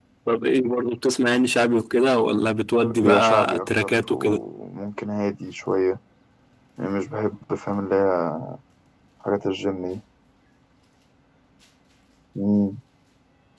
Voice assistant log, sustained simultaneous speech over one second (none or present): present